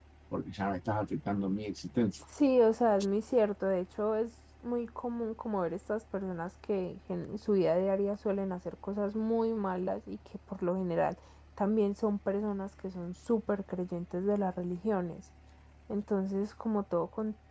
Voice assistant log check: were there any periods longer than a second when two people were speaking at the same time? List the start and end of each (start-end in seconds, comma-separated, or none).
none